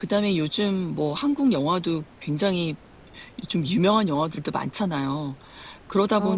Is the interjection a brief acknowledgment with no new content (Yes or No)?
Yes